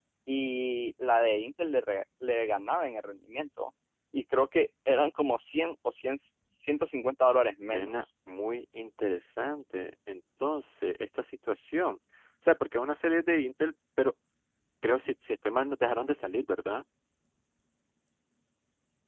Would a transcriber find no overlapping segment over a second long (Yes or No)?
Yes